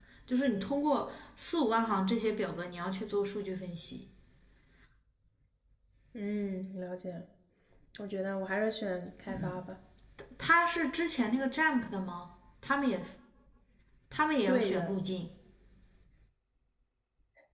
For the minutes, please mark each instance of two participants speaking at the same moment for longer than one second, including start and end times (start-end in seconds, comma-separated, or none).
none